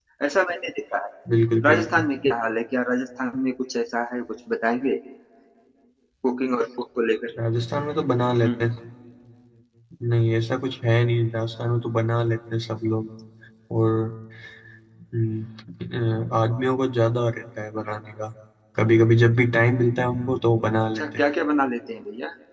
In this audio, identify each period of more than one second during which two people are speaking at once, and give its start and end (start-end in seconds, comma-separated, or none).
none